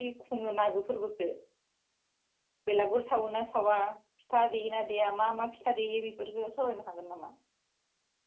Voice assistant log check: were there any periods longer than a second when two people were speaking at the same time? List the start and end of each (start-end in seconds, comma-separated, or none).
none